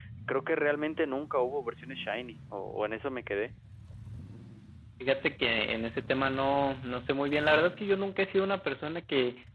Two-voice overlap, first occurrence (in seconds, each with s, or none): none